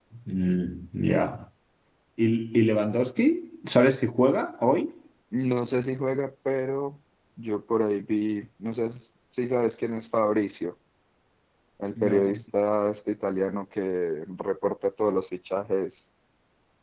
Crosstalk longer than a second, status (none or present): none